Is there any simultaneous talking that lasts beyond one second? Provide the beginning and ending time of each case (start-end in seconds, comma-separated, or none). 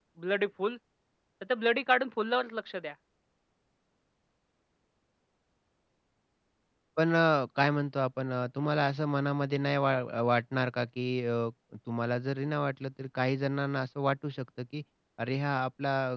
none